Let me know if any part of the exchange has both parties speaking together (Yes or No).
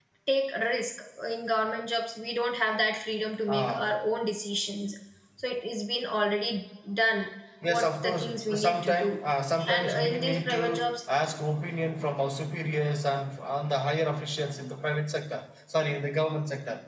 Yes